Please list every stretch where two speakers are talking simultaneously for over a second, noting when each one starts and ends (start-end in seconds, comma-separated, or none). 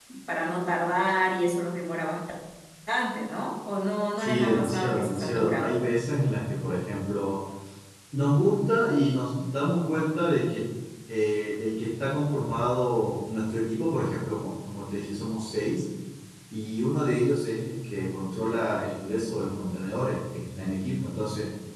4.2-5.7